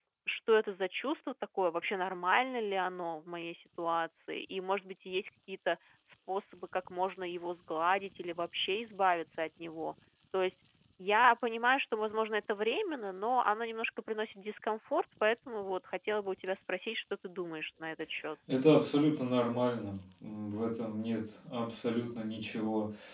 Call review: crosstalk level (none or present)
none